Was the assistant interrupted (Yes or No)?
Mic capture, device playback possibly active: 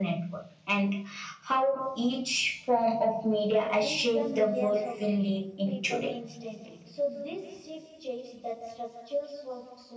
Yes